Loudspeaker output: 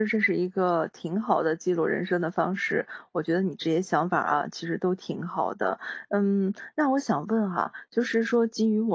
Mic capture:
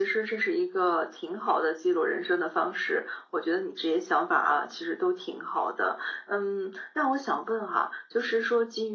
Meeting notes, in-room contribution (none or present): none